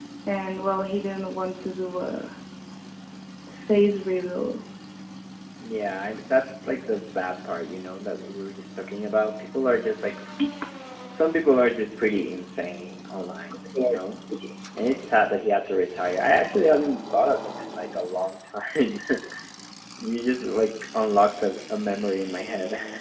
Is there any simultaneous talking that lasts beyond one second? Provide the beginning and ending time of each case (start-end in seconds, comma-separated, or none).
none